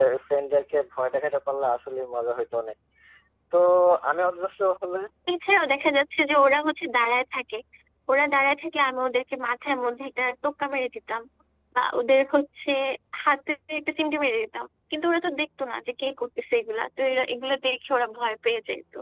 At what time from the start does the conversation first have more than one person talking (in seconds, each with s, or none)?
none